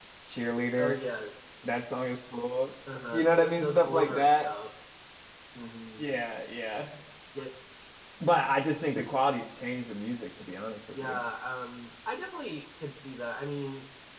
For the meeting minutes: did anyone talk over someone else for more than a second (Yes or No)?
Yes